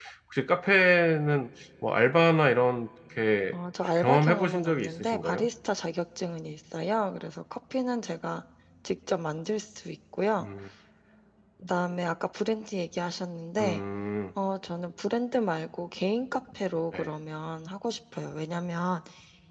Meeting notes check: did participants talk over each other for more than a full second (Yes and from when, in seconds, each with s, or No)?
Yes, from 4.0 s